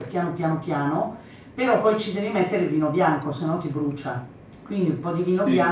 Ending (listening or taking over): listening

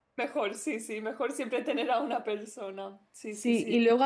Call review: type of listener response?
taking over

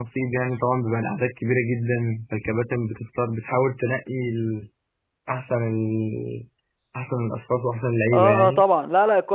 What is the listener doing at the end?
taking over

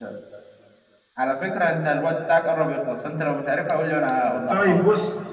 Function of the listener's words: taking over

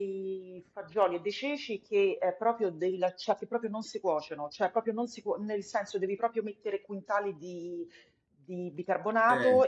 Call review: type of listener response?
listening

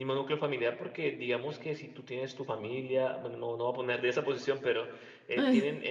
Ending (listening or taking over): listening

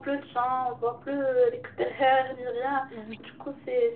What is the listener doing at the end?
listening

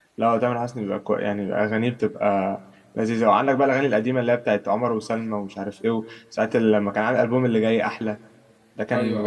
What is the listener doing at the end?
listening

